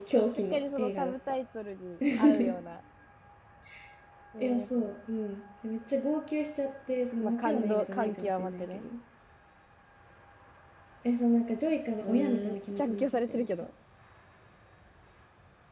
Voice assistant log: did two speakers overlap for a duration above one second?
Yes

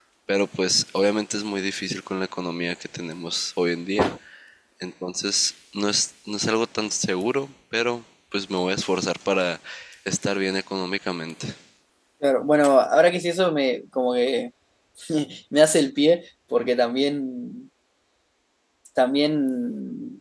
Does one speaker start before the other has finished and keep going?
No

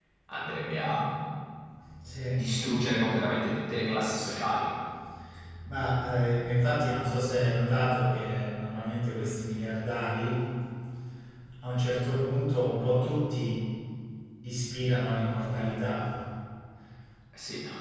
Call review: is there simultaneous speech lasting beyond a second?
No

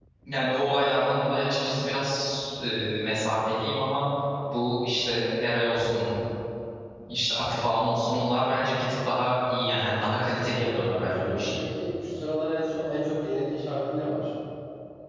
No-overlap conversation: No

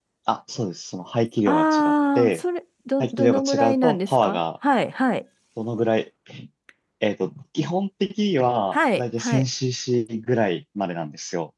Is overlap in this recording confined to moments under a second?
No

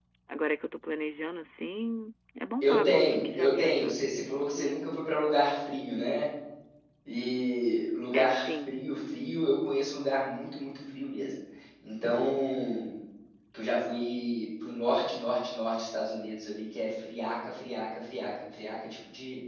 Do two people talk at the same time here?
Yes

